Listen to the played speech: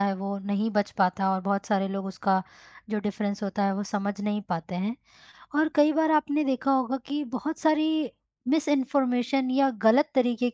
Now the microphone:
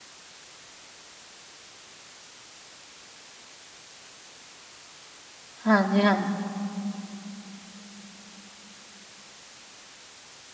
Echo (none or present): none